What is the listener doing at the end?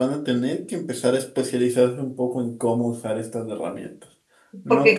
taking over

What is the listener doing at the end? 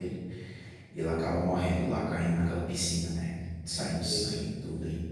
listening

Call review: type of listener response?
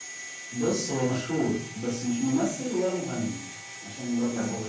taking over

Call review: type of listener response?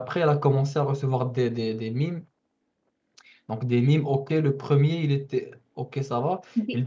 listening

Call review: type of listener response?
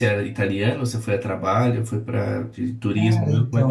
taking over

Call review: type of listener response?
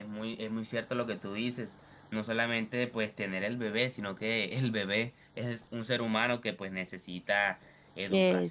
listening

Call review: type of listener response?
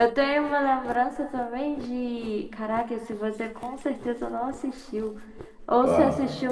listening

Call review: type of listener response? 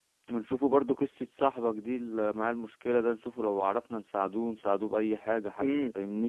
taking over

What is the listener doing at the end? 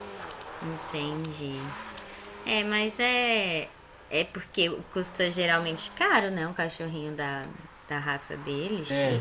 taking over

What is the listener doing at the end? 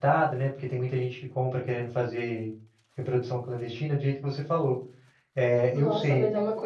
taking over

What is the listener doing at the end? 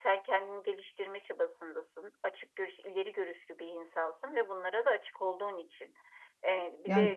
listening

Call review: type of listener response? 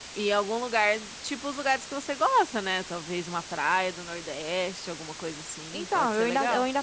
taking over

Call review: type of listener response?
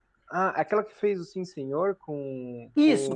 taking over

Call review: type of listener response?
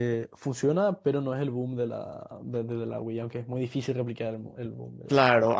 taking over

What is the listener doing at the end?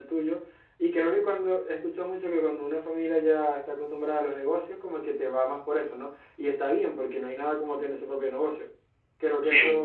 listening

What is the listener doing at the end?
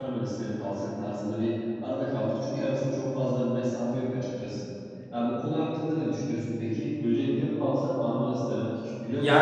taking over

